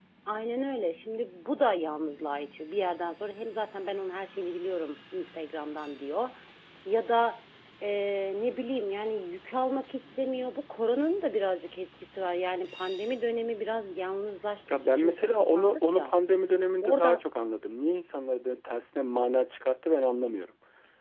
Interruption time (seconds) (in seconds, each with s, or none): 14.7 s